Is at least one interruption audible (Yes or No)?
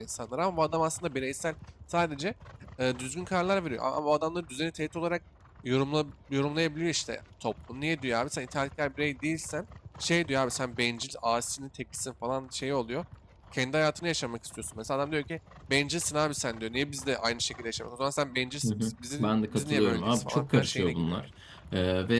Yes